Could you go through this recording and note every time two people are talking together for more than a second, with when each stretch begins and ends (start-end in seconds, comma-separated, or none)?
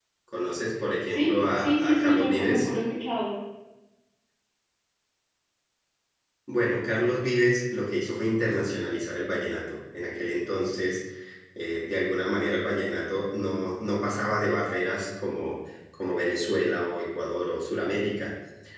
1.1-2.7